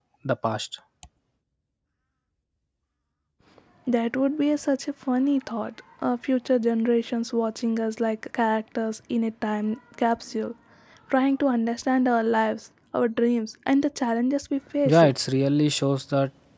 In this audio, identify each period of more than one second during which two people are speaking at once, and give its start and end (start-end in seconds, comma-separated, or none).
none